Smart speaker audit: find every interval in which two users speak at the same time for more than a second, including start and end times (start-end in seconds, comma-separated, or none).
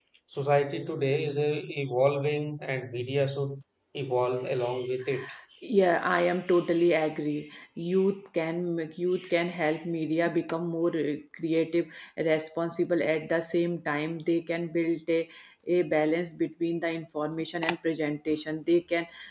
none